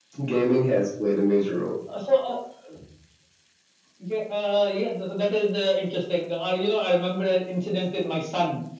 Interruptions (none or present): none